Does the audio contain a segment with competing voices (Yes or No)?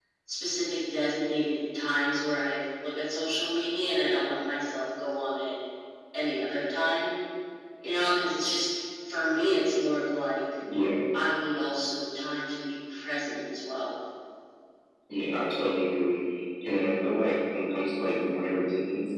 No